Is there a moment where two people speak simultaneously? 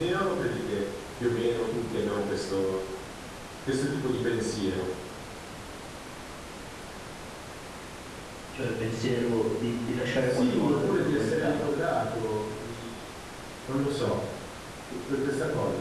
Yes, from 10.2 s

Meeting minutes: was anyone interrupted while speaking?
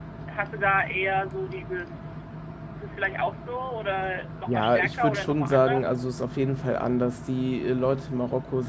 Yes, from 4.5 s

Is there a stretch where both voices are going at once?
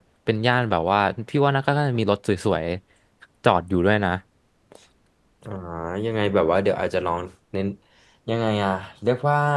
No

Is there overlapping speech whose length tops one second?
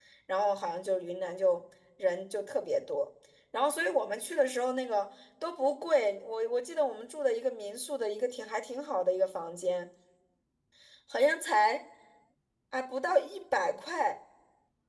No

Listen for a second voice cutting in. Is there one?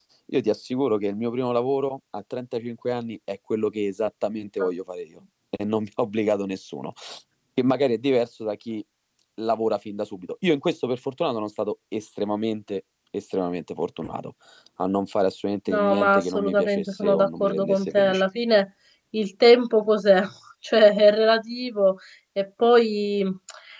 Yes, from 15.7 s

